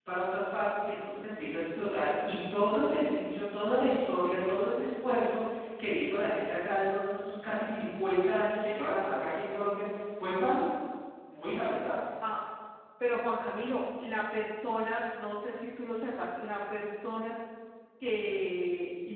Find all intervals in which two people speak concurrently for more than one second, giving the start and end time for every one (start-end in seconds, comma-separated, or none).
none